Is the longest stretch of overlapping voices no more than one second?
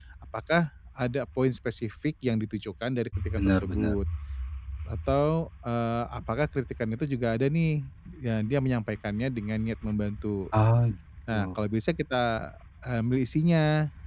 Yes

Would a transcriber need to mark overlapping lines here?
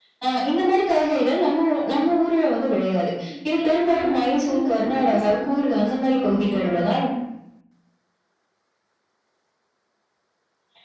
Yes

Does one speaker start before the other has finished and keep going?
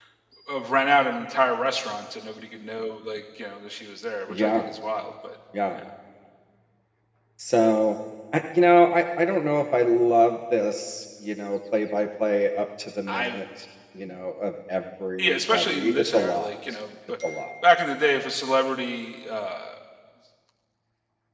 Yes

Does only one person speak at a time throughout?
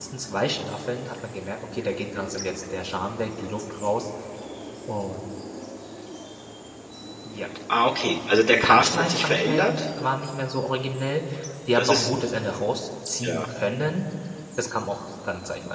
No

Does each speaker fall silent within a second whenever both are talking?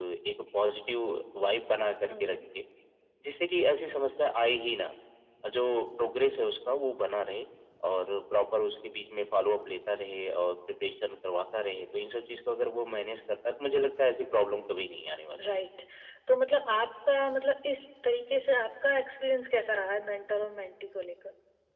Yes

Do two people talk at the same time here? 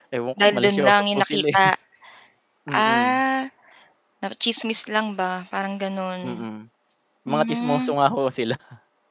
Yes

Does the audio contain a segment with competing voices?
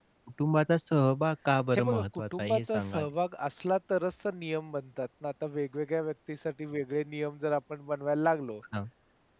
Yes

